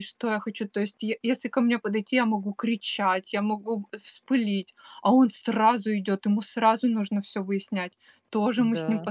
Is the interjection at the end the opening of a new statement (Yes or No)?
No